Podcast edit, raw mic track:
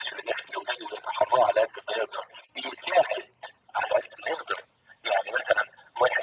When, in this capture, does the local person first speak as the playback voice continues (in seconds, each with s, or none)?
none